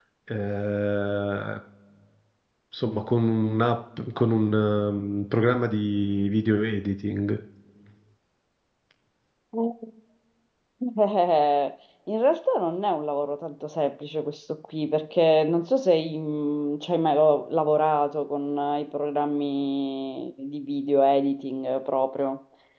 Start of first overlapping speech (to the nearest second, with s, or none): none